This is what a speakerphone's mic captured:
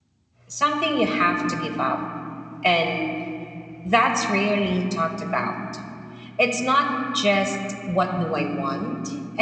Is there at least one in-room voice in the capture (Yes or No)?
Yes